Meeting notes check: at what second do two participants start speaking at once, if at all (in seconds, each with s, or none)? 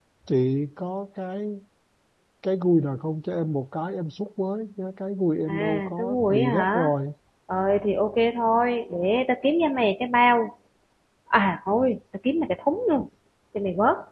5.5 s